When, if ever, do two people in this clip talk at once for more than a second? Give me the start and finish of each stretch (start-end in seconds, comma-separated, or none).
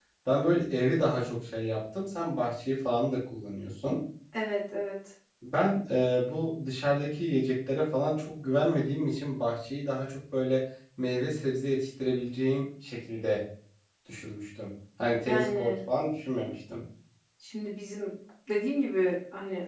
none